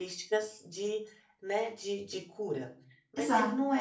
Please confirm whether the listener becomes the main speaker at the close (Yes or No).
No